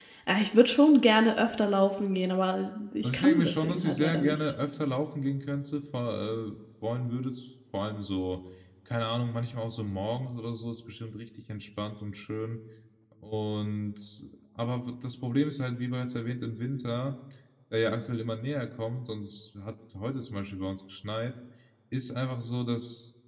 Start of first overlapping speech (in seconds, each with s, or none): 3.0 s